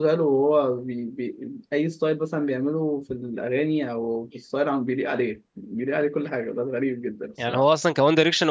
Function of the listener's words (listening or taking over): taking over